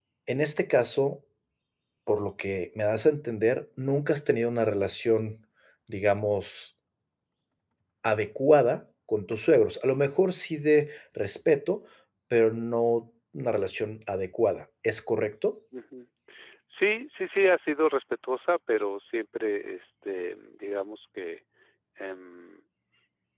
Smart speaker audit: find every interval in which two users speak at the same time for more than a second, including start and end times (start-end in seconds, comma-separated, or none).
none